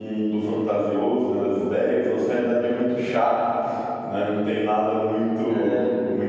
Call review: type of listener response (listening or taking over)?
listening